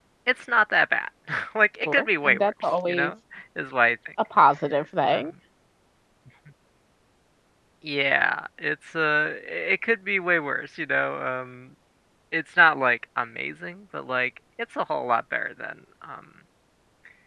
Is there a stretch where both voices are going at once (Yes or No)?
Yes